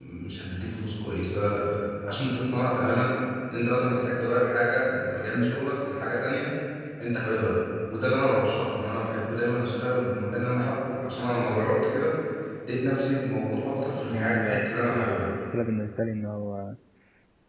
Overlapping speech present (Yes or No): Yes